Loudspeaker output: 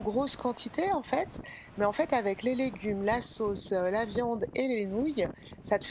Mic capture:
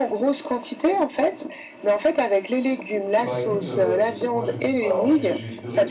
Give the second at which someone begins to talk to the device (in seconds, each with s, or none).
3.2 s